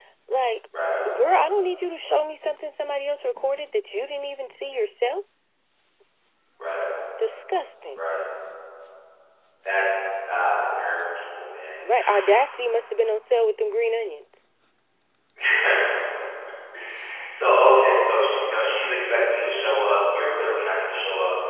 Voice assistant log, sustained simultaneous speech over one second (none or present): none